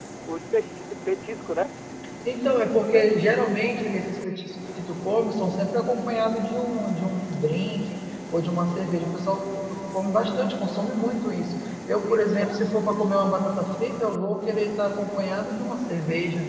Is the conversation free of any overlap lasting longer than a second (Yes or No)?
Yes